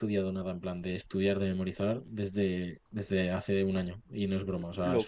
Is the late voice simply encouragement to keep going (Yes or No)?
No